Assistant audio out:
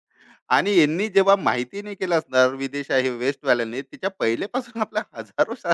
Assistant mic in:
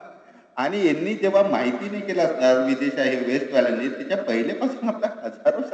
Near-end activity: none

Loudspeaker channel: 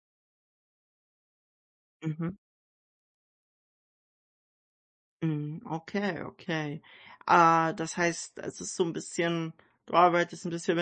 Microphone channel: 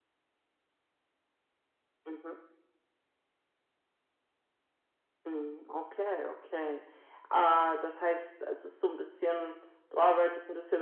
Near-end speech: none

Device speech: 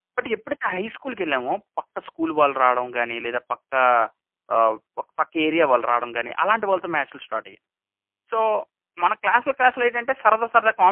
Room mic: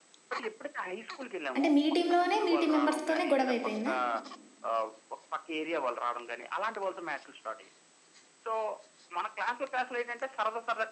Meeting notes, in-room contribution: present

